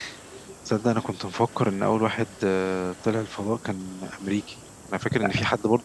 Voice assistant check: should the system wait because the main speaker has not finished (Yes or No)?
Yes